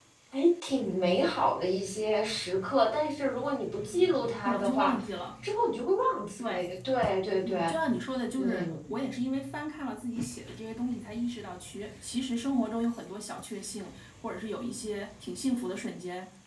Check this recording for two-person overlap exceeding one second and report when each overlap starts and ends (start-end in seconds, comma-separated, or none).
none